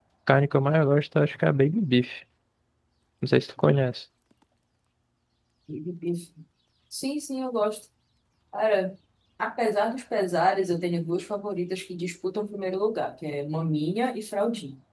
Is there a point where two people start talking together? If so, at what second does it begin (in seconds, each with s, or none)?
none